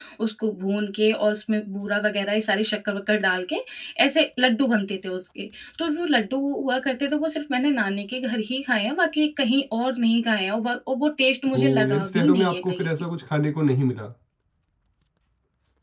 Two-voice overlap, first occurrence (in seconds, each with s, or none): 11.5 s